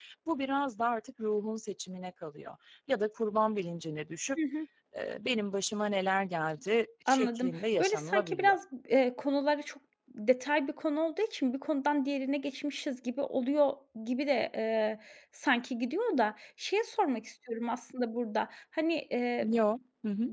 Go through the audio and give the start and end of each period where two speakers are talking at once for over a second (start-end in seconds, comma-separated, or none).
7.1-8.6